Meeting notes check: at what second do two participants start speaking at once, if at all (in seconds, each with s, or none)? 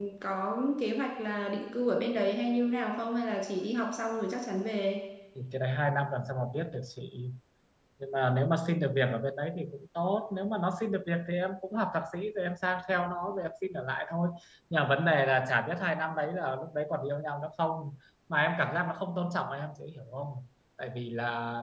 none